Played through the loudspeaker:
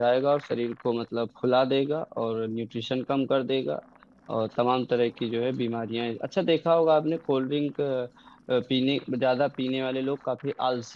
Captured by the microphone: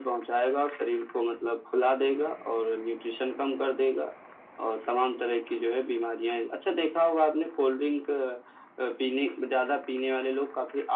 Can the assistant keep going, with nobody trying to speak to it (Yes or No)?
Yes